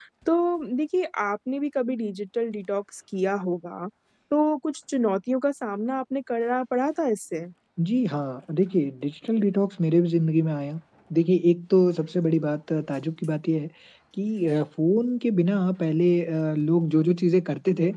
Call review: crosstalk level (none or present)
none